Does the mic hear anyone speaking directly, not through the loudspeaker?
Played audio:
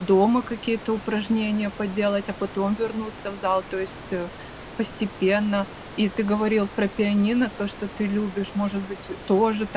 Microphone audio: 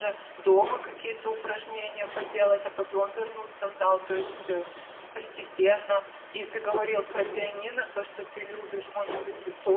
No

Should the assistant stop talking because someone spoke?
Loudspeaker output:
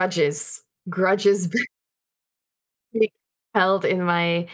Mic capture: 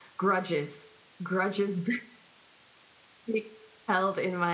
No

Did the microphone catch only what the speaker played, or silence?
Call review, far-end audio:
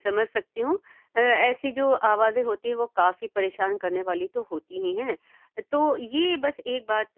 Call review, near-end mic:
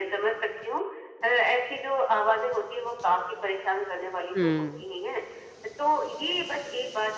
No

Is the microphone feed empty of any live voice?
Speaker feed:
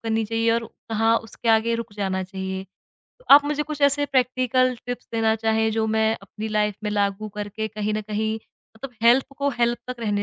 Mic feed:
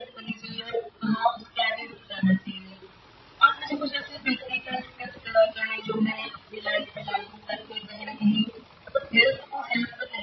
Yes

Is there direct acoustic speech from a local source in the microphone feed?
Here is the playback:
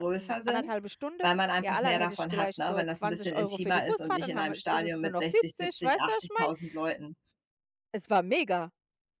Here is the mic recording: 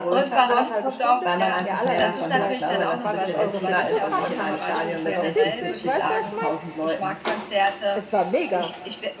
Yes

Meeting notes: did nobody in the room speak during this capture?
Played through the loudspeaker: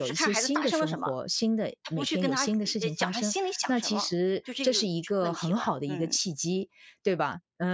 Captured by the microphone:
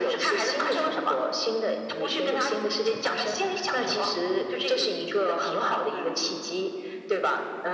Yes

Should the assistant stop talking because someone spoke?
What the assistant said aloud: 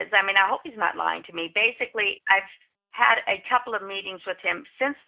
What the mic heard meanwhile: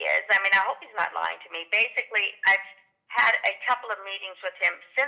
No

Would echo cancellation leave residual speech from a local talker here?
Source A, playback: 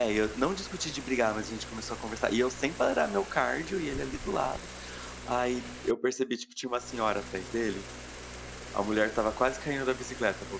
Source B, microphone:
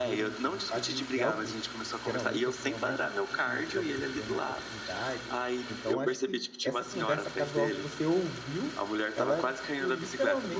Yes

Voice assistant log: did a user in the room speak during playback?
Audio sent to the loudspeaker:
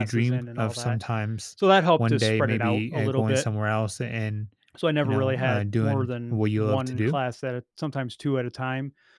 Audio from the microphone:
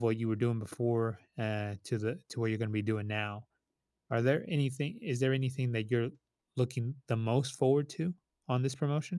Yes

